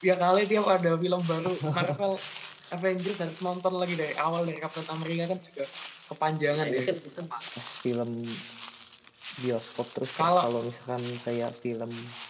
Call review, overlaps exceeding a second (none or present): none